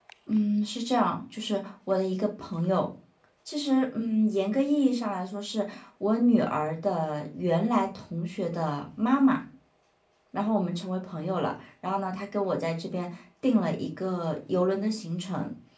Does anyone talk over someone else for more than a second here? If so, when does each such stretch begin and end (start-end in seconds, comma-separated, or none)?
none